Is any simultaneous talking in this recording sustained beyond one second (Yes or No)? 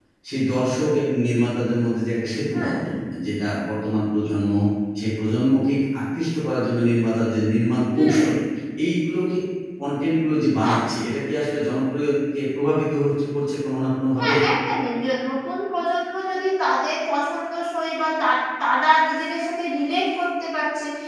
No